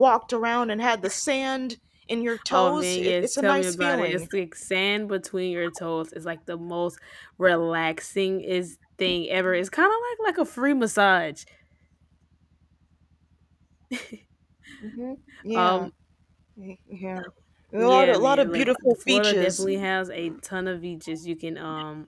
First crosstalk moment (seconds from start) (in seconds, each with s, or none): 2.5 s